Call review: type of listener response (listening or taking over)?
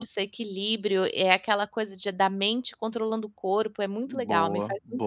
taking over